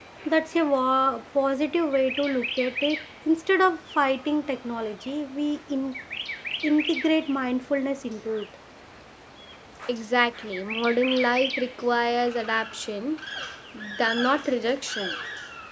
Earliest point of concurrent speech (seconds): none

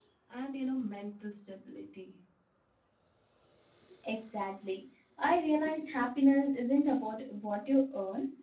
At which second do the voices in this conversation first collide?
none

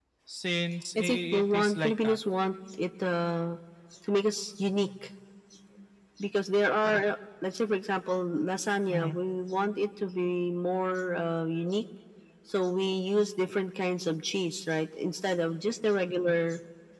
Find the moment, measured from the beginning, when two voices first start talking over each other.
1 s

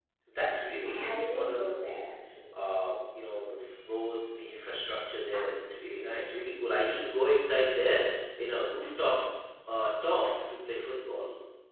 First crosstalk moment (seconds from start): 1 s

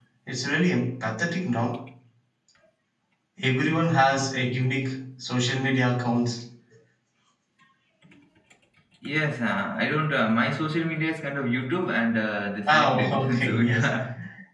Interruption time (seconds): 13 s

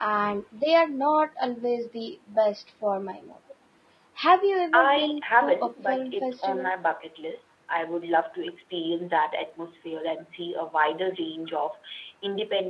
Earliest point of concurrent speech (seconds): 5 s

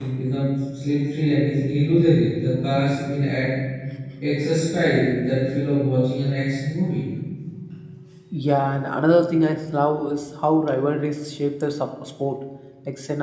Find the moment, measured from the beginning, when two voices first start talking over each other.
none

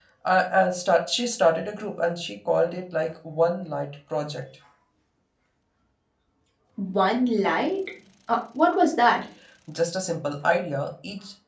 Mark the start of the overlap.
none

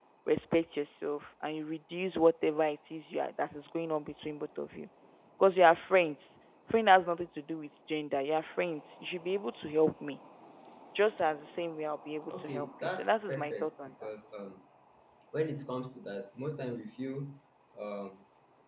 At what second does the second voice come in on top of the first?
12 s

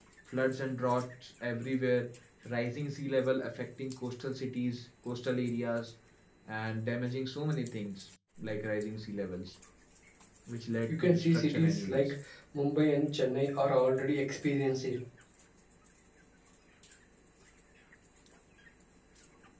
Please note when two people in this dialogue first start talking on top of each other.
11 s

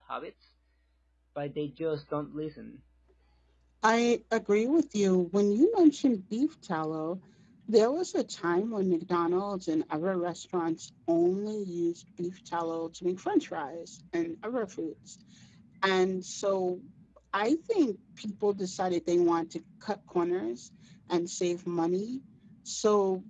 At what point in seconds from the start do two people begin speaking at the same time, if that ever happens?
none

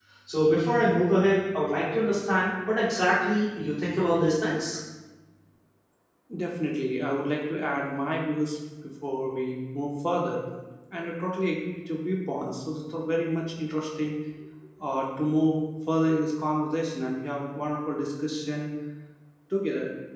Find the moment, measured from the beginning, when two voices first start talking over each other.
none

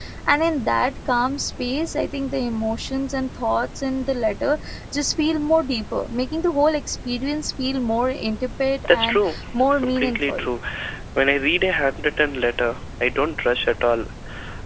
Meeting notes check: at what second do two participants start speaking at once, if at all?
9 s

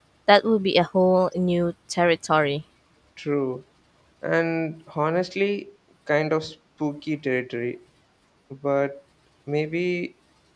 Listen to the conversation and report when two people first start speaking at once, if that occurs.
none

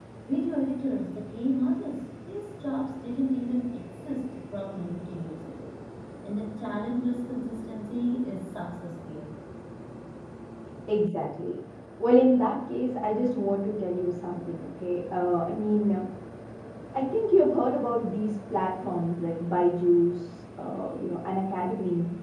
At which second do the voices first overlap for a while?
none

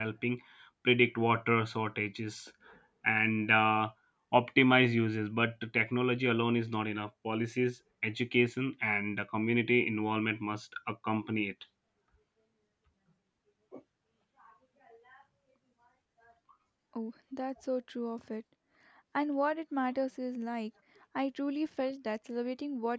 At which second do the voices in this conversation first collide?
none

